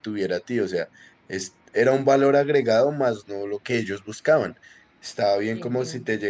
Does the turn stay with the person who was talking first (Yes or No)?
Yes